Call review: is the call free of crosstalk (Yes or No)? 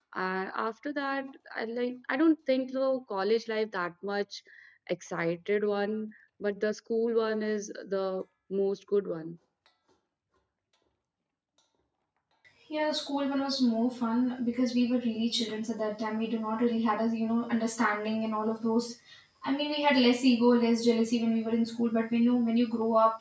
Yes